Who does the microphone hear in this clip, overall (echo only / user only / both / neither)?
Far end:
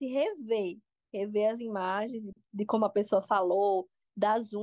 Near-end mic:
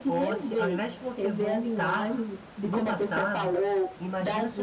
both